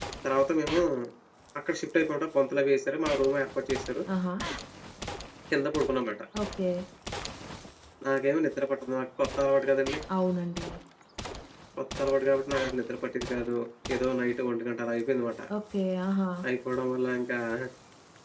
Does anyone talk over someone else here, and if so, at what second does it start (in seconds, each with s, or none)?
none